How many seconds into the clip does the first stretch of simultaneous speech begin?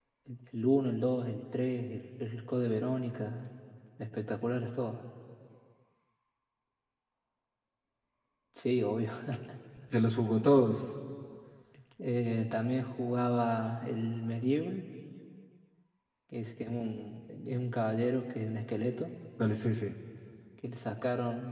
none

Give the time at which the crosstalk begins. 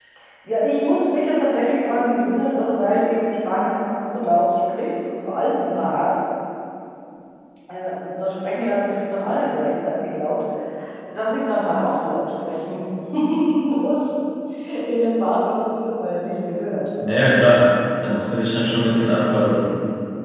none

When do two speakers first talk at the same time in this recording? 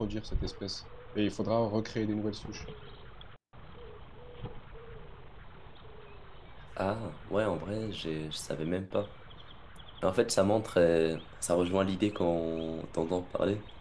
none

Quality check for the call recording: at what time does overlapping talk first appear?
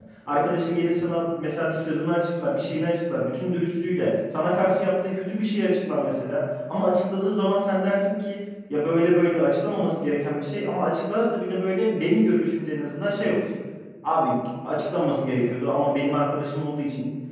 none

